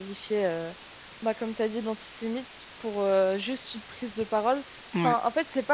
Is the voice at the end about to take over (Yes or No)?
No